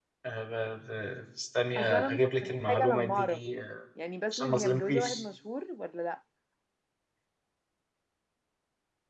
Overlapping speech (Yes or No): Yes